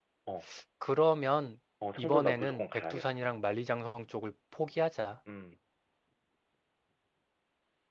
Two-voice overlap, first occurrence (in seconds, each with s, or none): 1.8 s